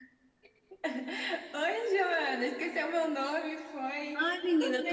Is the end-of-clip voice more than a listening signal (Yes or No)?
Yes